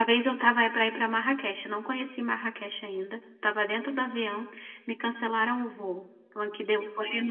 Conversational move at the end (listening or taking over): listening